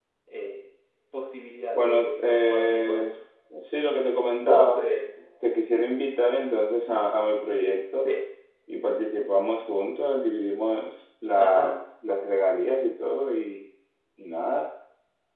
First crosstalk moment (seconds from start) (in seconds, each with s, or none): 1.7 s